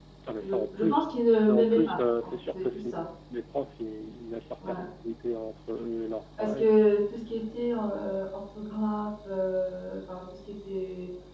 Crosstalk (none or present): present